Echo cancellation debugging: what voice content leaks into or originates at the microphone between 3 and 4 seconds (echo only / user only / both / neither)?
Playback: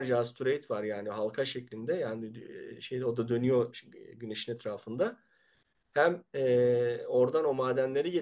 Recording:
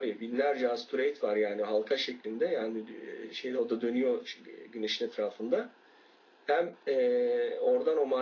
echo only